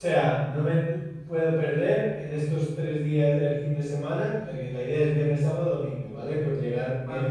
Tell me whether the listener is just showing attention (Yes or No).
Yes